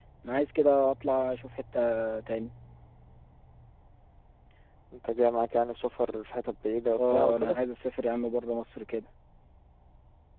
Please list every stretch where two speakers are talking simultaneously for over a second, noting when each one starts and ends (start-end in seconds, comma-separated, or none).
none